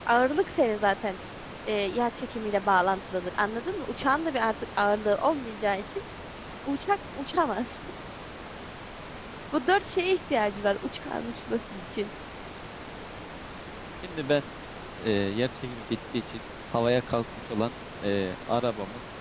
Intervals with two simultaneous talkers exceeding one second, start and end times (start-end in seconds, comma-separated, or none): none